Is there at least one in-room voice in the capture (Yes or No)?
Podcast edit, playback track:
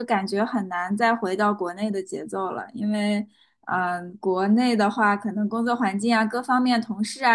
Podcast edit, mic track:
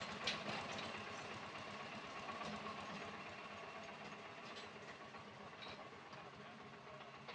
No